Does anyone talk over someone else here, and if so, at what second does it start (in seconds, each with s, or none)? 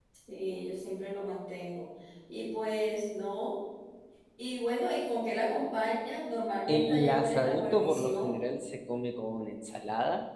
6.7 s